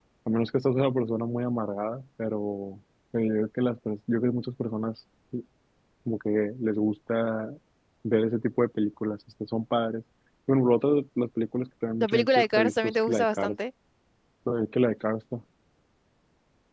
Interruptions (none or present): present